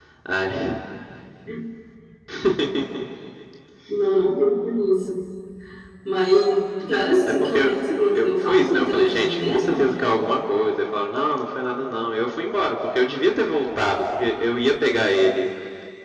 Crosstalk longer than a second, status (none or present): present